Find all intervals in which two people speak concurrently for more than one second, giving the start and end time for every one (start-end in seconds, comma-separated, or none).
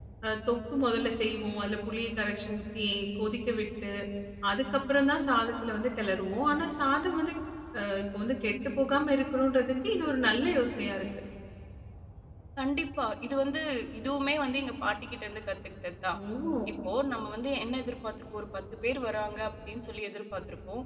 none